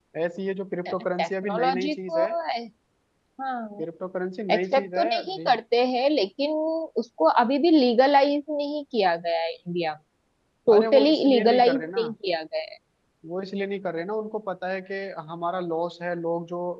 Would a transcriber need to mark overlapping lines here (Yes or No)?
Yes